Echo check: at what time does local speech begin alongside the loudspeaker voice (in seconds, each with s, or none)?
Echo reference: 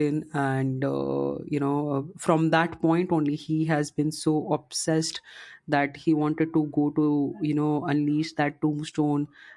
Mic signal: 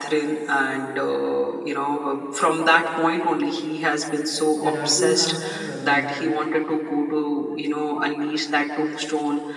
4.6 s